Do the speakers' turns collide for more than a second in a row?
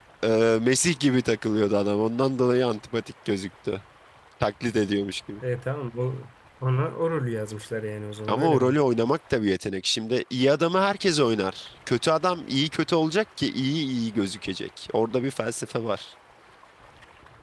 No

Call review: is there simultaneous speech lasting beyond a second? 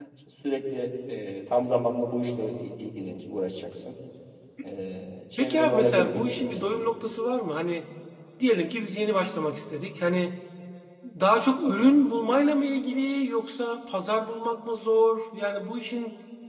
Yes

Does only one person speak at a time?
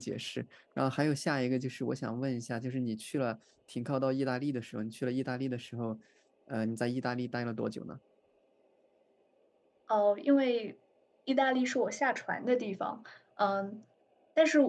Yes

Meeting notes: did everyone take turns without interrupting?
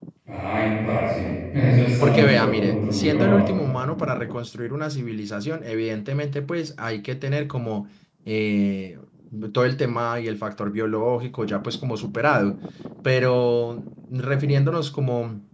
No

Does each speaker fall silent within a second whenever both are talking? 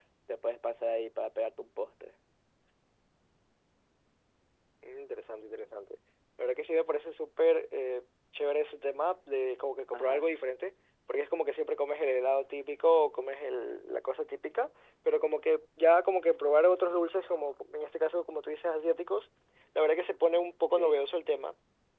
Yes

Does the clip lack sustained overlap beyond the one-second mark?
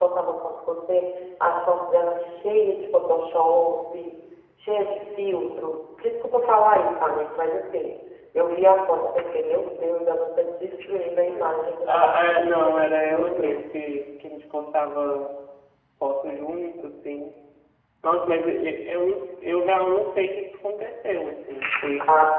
No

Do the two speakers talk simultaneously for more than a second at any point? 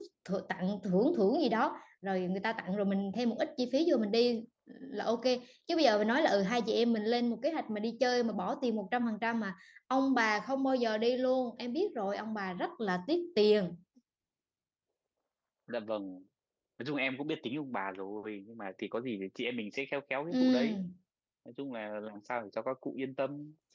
No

